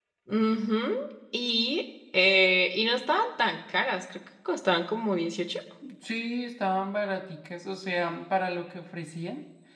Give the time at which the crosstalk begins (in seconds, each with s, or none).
none